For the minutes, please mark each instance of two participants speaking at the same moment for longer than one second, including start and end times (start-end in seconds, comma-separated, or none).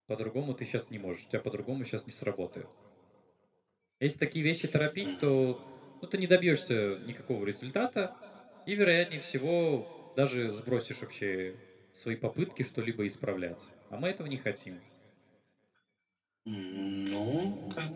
none